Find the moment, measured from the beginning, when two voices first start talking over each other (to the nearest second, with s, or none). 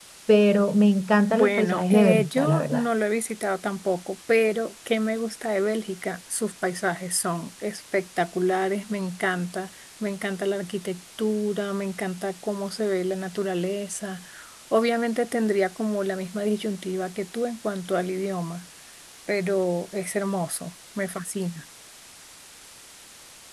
1 s